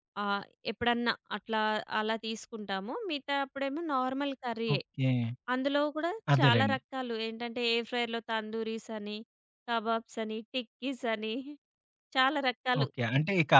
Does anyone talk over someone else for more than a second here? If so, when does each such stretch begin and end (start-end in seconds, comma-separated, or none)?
none